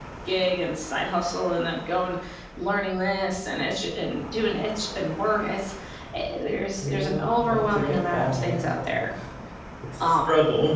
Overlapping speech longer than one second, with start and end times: 6.8-9.1

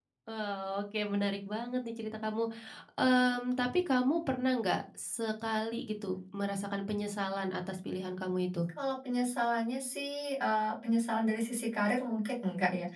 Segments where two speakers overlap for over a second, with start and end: none

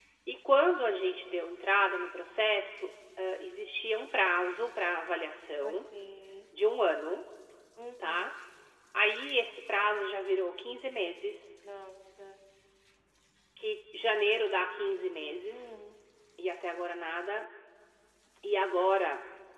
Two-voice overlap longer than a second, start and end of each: none

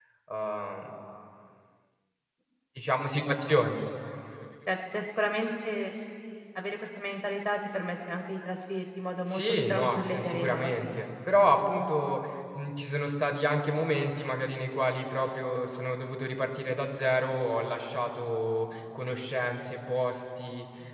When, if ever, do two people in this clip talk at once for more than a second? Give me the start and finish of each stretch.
9.3-11.1

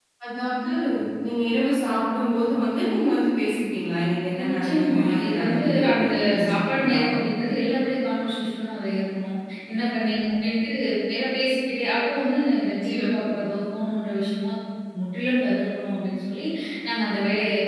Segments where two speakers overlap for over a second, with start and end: 4.4-7.0

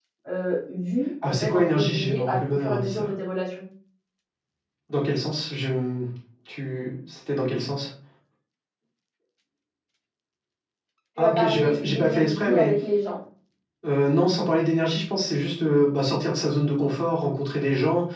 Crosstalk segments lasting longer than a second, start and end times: 1.2-3.1, 11.2-12.7

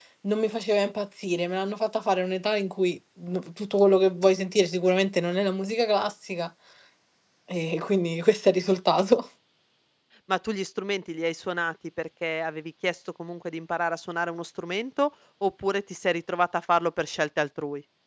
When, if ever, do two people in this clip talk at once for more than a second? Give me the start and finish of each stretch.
none

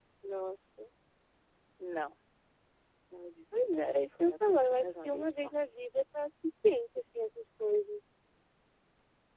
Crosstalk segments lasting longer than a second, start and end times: 3.5-5.5

